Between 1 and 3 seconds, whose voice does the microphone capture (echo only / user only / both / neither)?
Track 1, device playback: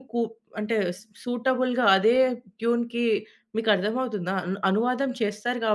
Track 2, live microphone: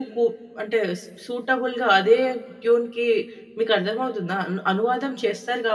echo only